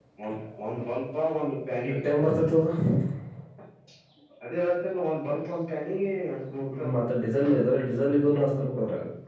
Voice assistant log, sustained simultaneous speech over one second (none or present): none